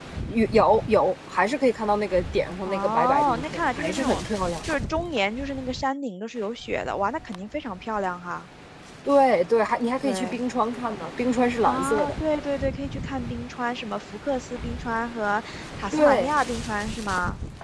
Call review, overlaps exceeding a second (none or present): present